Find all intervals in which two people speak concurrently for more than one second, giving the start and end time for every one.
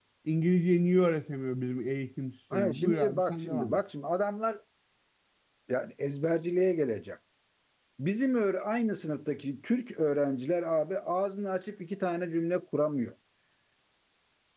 2.5-3.8

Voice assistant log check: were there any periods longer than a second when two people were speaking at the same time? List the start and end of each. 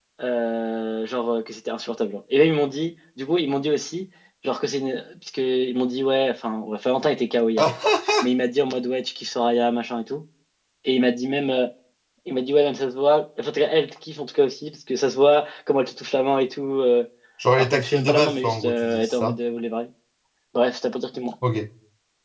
17.6-19.4

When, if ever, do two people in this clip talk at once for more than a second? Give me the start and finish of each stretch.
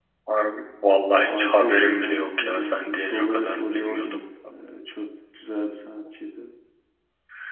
1.1-4.2

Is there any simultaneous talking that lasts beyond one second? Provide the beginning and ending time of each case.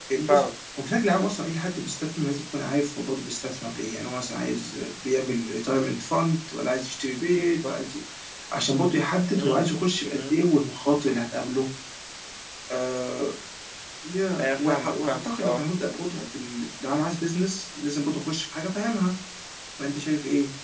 14.4-15.6

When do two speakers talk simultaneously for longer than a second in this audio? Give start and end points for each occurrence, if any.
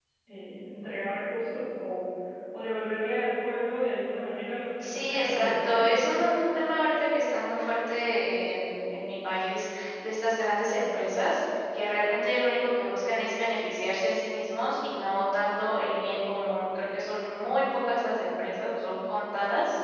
4.9-6.2

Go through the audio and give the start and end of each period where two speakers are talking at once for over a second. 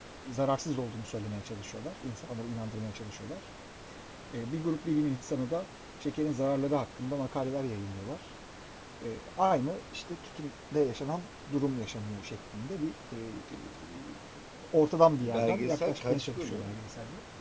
15.2-16.8

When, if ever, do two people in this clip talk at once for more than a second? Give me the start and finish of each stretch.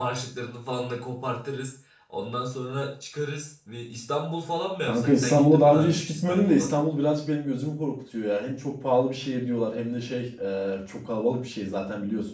4.9-6.7

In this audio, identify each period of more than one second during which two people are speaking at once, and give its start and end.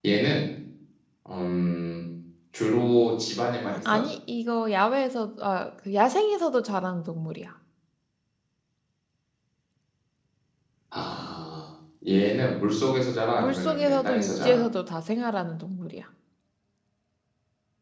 13.3-14.6

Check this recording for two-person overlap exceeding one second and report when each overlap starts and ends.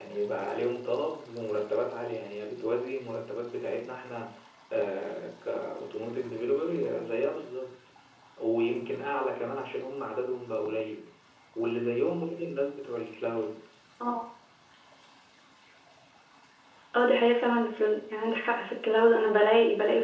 none

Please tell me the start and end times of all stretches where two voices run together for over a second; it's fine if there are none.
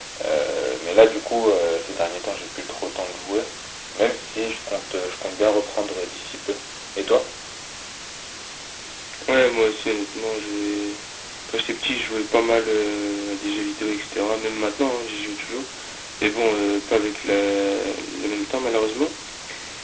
none

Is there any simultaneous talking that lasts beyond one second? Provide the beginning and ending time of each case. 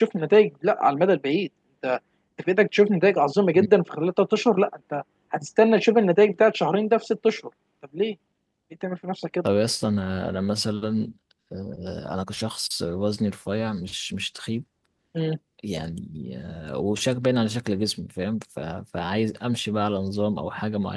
none

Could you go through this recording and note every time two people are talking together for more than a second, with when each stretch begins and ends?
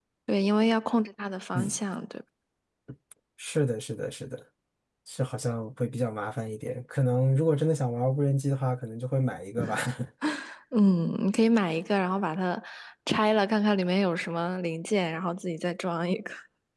none

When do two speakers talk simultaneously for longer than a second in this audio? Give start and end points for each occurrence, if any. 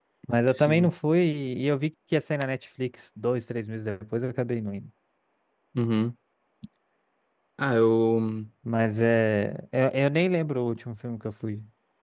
none

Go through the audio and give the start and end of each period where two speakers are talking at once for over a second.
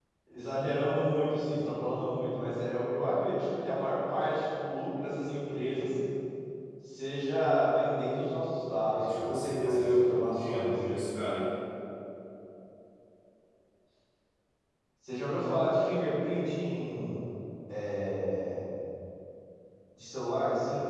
8.9-10.7

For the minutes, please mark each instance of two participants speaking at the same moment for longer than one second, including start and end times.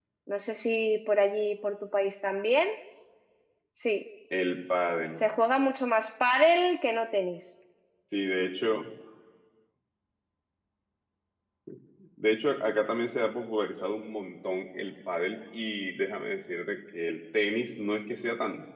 none

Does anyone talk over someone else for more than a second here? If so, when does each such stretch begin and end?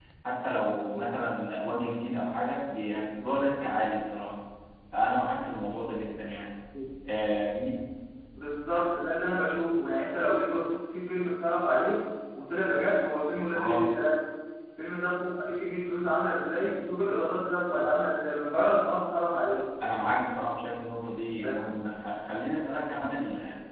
none

